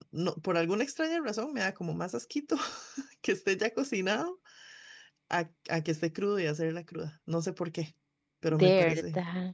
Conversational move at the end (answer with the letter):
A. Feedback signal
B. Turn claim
A